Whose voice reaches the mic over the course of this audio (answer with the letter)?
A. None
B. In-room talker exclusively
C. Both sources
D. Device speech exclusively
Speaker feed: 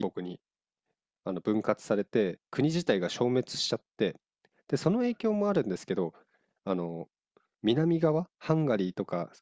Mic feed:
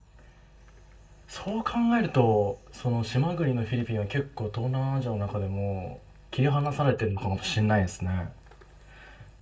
B